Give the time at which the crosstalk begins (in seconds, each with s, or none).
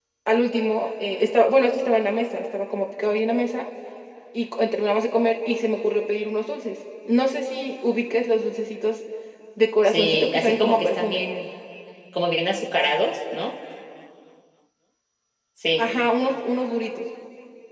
9.8 s